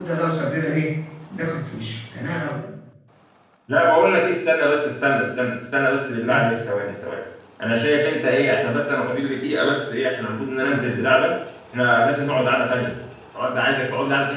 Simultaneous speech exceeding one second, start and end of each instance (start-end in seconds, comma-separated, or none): none